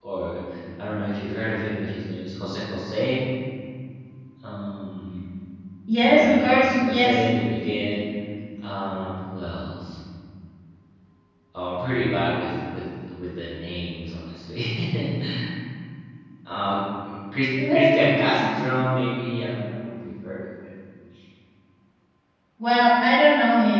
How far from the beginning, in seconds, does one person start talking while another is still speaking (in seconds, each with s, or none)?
6.0 s